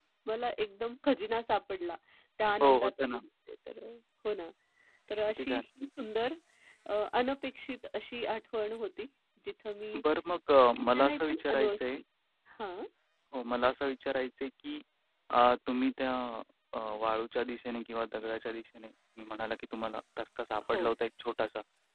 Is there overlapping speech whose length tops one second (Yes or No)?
Yes